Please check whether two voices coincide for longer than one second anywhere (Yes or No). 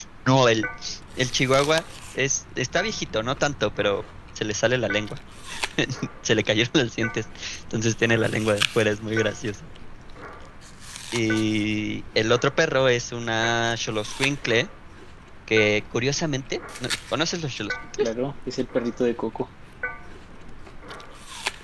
No